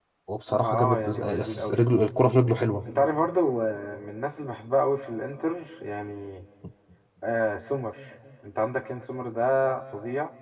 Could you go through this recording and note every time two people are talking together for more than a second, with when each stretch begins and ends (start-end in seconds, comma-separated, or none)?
0.5-1.8